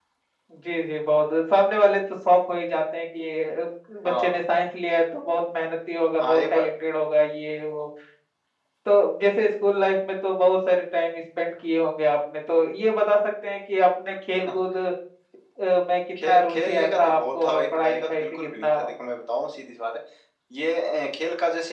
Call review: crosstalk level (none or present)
present